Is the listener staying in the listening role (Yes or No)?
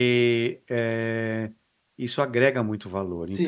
No